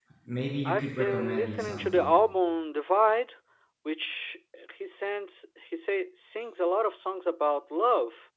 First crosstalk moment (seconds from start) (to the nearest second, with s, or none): 1 s